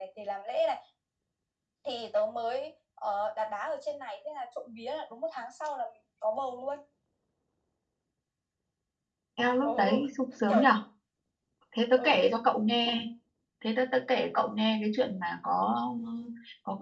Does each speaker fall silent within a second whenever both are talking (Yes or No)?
Yes